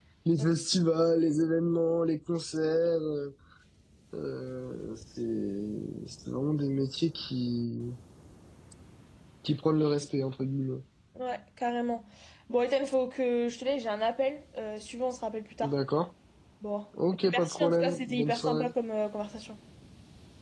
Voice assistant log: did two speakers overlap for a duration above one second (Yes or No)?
Yes